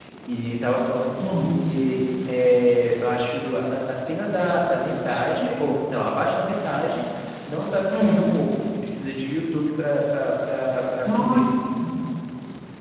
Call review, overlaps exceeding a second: none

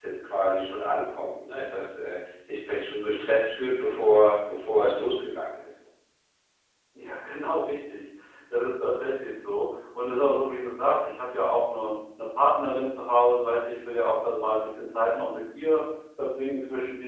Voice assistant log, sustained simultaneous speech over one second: none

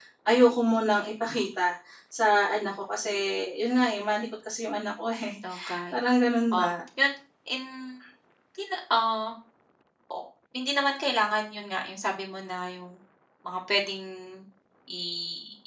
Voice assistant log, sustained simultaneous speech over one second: none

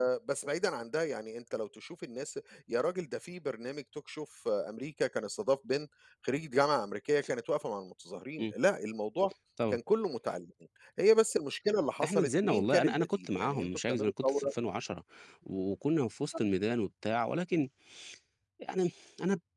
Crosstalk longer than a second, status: present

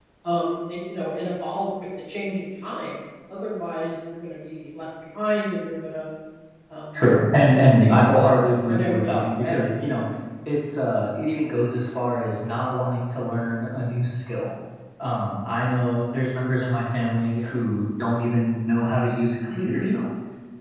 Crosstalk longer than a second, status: present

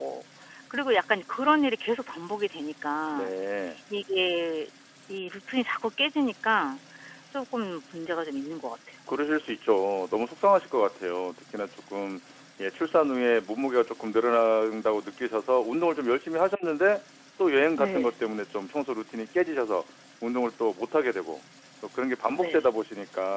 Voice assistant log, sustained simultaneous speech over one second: none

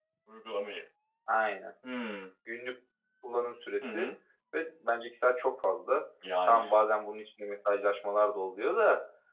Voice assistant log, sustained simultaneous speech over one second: none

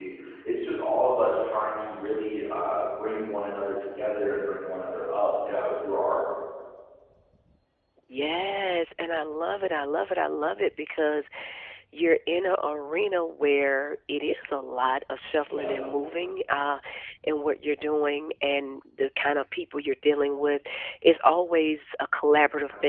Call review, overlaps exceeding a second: none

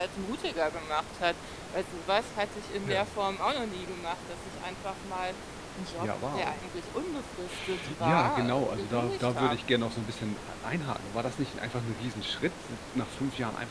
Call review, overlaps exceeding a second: present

